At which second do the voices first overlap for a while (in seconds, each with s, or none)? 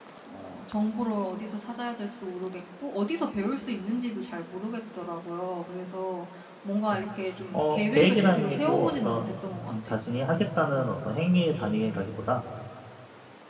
7.5 s